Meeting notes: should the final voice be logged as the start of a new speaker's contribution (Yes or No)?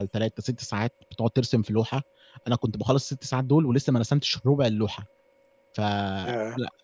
No